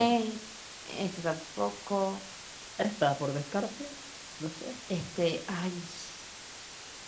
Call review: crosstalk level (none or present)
none